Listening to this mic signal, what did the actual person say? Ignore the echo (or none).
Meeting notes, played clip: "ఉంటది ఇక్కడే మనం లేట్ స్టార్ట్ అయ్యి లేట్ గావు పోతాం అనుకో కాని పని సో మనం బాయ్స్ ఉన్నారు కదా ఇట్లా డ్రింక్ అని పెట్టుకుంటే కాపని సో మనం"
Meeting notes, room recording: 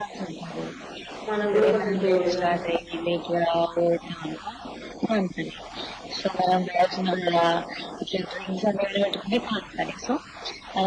మనకు కూడా కొంచెం తోడుగా